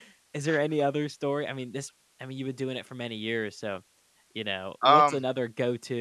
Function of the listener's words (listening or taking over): listening